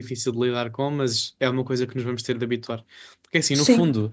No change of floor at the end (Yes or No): Yes